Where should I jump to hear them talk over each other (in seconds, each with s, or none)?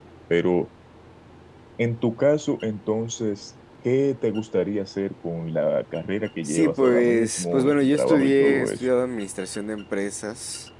6.4 s